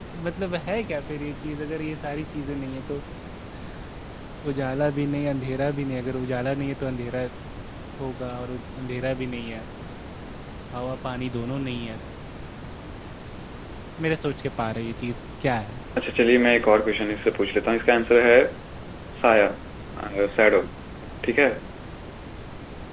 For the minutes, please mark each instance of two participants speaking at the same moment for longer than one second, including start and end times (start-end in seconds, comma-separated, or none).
none